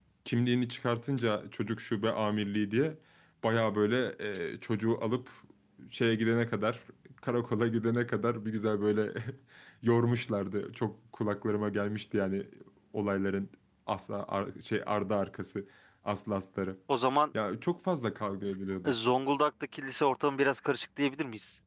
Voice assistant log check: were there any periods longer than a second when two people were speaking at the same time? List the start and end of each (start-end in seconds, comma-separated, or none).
none